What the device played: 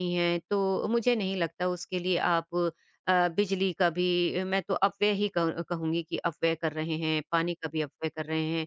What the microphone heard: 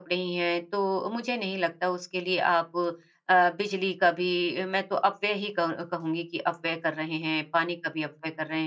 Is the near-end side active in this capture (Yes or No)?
No